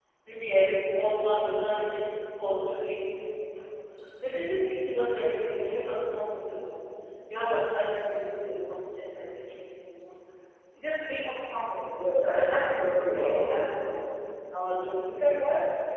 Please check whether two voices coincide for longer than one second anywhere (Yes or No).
Yes